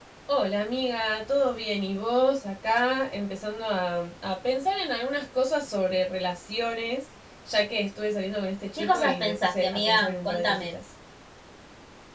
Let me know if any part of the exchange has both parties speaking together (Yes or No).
Yes